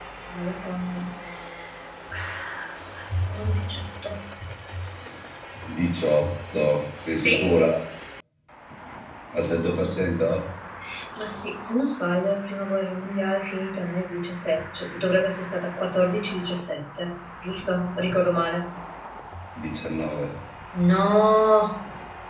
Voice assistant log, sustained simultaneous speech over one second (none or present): none